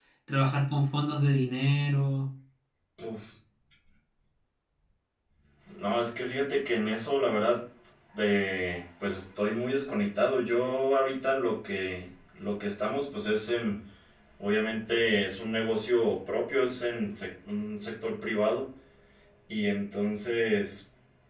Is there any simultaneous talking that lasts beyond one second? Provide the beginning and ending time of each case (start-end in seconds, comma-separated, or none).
none